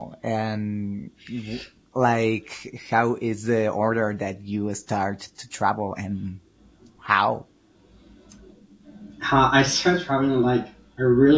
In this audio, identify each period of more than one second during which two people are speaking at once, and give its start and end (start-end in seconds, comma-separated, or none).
none